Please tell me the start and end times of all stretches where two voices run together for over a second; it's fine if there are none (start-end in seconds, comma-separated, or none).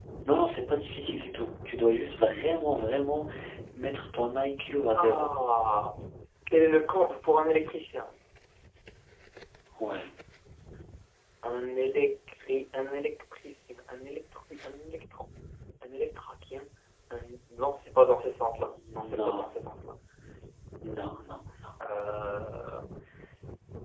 none